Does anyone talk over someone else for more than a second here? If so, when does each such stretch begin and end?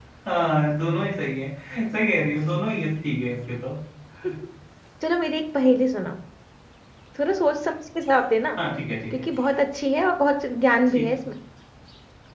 none

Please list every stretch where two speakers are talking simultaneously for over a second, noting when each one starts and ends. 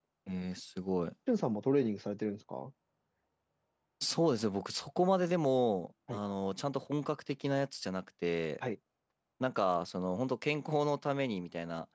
none

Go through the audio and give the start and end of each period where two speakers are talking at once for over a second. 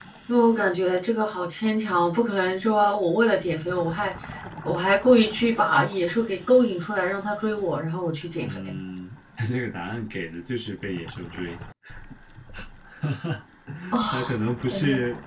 none

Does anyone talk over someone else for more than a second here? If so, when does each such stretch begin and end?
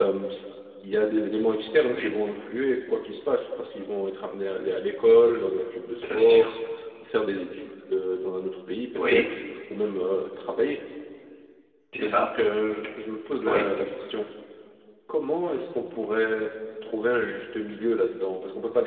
none

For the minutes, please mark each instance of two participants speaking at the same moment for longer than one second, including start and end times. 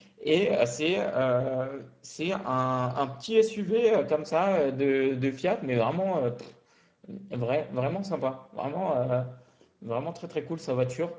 none

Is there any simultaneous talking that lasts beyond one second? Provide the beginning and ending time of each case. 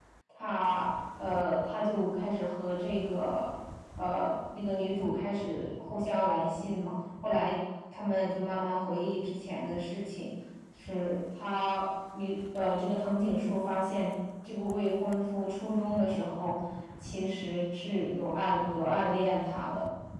none

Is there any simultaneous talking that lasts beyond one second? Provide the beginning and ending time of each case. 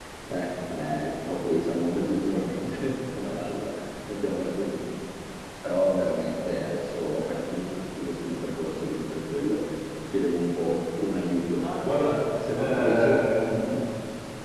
12.5-13.8

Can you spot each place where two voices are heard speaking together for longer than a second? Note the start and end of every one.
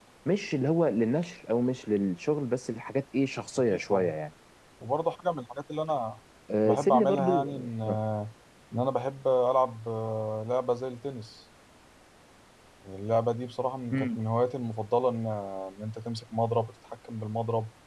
6.6-8.0

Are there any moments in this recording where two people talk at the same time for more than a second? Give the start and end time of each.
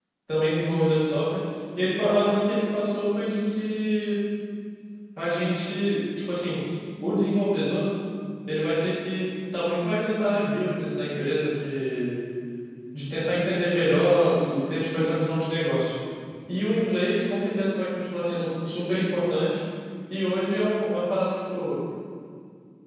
none

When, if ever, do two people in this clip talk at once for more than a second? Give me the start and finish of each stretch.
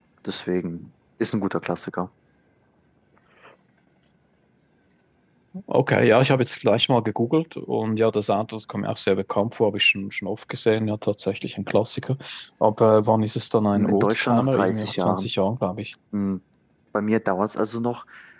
13.7-15.3

